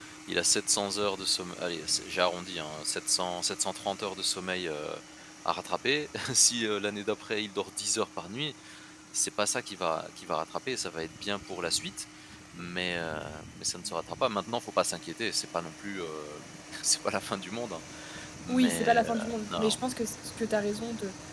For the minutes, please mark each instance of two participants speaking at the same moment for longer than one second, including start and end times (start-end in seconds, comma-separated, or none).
18.5-19.8